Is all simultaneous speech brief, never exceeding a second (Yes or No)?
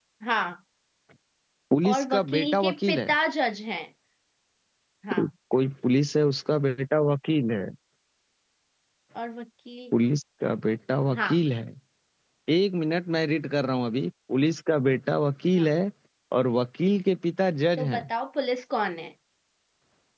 No